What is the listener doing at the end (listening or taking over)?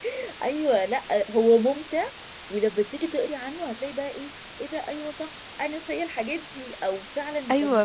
taking over